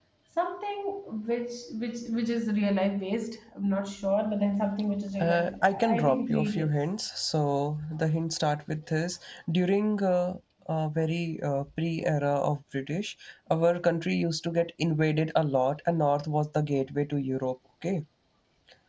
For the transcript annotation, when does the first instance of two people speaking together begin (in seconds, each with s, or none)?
5.2 s